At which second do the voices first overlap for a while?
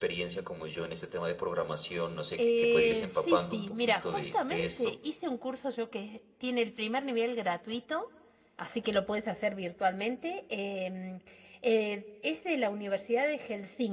2.4 s

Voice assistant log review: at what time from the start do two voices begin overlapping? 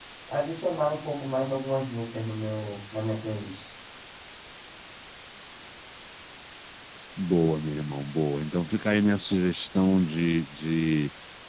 none

